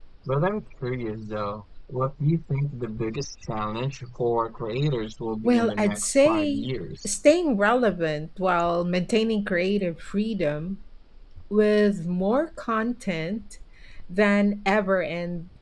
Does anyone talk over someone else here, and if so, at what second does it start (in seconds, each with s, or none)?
5.4 s